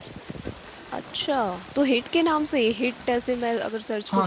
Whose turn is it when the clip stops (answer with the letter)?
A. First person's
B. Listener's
B